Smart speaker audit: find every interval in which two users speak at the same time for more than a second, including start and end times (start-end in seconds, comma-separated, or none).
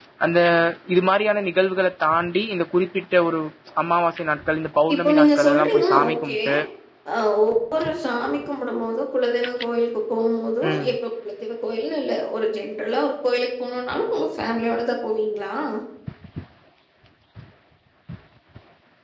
4.9-6.3